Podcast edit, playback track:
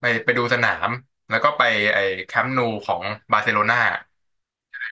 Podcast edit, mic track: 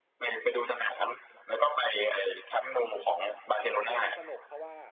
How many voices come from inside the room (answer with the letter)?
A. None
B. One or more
B